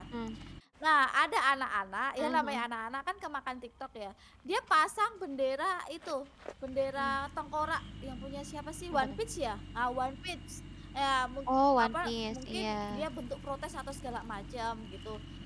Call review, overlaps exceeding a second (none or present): present